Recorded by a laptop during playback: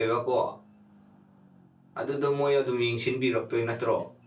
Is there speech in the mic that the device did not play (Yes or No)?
Yes